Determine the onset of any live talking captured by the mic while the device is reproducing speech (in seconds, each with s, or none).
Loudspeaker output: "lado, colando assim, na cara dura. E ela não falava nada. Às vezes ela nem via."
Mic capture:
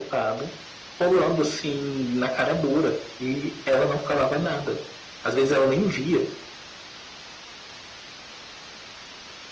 none